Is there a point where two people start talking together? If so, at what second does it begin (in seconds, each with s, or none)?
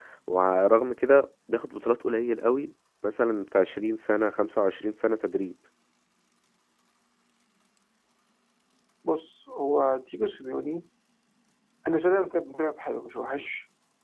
none